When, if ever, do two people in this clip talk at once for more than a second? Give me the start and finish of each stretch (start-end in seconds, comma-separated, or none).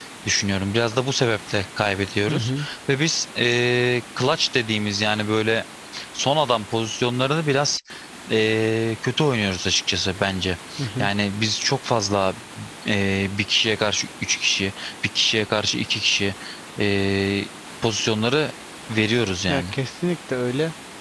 none